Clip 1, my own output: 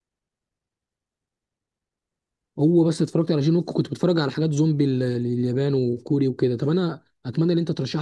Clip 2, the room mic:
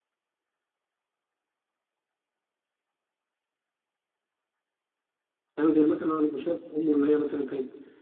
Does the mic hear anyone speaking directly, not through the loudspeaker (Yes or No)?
Yes